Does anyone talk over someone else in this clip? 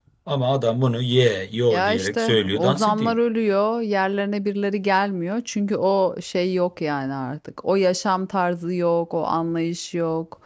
Yes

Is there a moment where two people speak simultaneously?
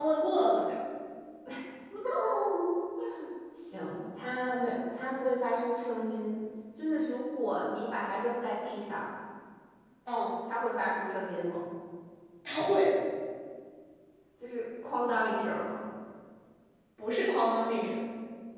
No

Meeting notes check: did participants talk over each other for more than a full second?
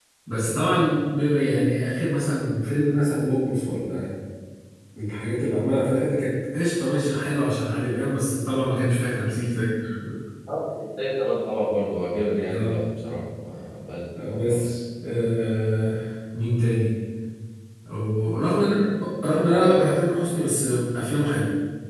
No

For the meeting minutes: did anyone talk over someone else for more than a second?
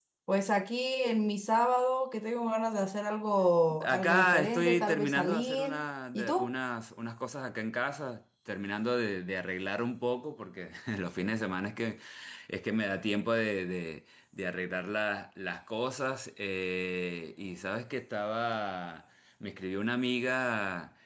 Yes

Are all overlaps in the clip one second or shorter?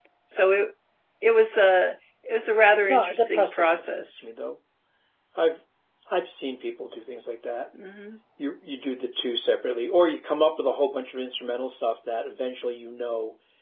No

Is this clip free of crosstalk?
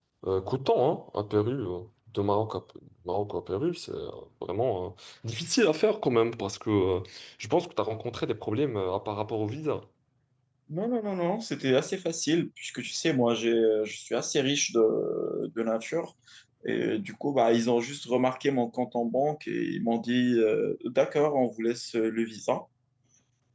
Yes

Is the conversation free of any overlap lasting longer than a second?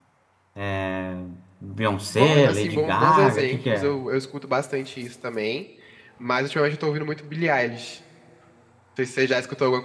No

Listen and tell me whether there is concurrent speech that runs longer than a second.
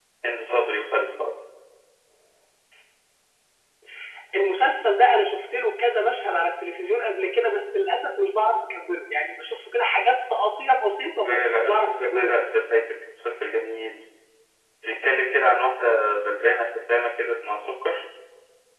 Yes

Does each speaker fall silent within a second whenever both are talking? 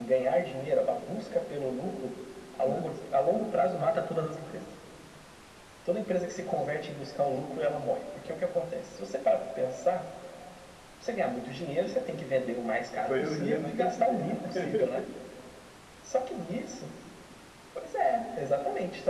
No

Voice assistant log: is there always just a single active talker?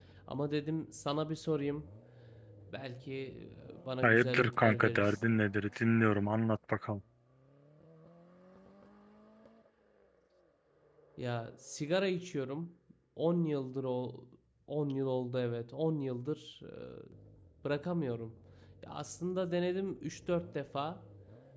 No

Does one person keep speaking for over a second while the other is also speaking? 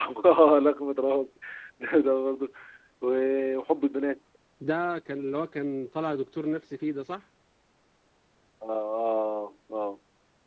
No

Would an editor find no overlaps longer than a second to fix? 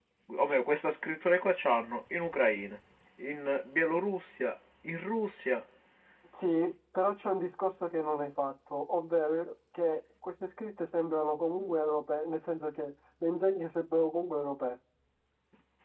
Yes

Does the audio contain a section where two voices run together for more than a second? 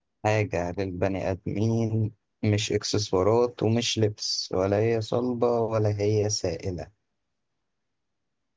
No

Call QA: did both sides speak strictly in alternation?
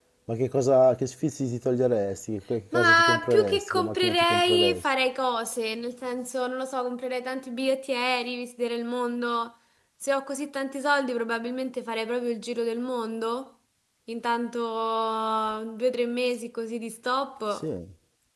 No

